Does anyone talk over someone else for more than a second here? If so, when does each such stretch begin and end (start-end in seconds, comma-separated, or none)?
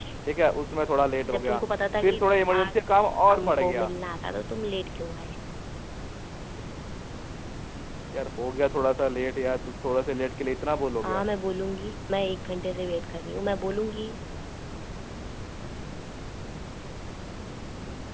2.0-3.9